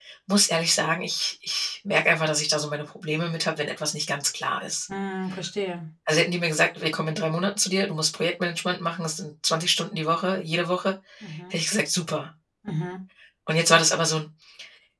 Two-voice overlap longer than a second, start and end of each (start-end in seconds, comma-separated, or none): none